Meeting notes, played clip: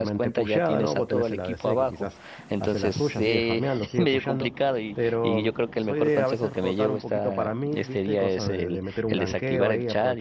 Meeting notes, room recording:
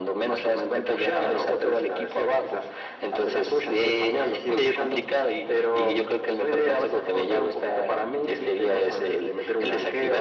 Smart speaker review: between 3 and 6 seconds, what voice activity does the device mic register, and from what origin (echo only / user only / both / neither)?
echo only